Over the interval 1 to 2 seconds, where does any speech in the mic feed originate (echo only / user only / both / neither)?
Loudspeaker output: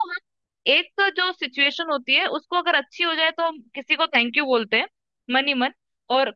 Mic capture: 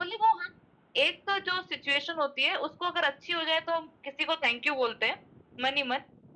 echo only